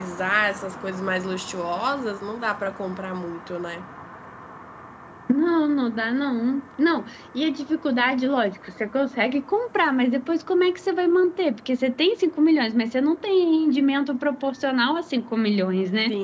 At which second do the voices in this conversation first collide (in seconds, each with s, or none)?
none